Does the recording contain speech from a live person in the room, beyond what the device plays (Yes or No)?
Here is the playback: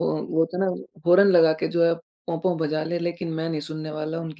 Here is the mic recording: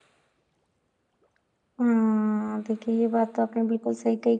Yes